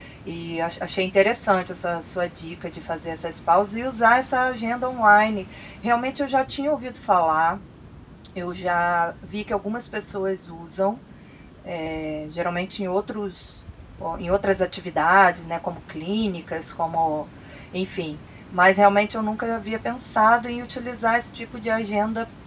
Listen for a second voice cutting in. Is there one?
No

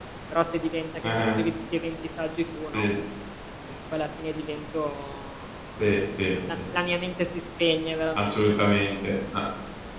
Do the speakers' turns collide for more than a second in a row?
No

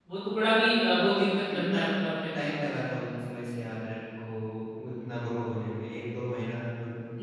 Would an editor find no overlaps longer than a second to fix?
Yes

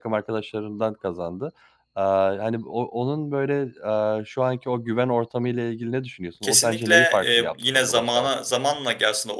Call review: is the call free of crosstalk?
No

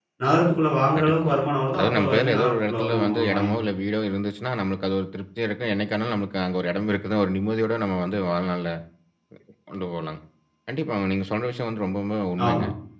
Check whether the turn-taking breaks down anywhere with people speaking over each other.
Yes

